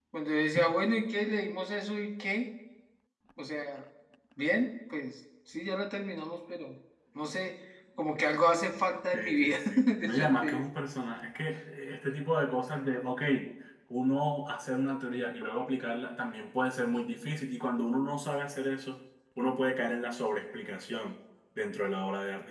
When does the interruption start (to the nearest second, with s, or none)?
9 s